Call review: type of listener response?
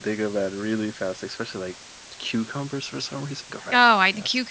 taking over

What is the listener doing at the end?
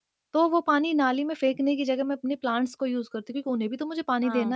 taking over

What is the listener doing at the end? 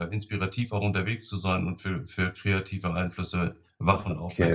taking over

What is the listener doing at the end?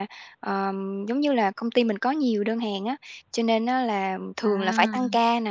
listening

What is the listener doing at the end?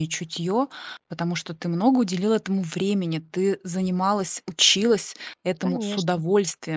listening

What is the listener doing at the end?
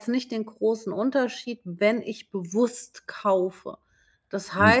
taking over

